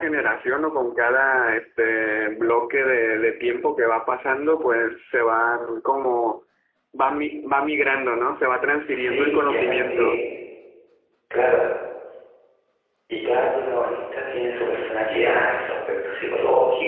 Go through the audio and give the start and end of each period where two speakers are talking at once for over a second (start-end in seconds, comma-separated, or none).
8.9-10.1